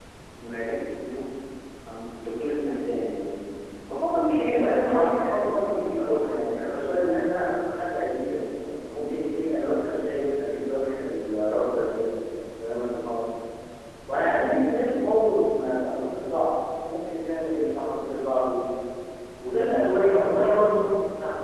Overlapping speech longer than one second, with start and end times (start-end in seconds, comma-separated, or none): 4.5-7.2